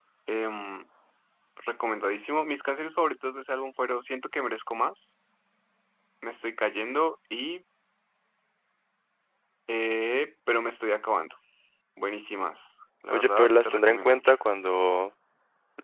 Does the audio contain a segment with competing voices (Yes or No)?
Yes